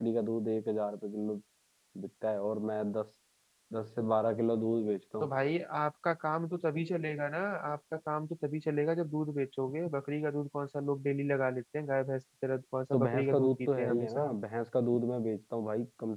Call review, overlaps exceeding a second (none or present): present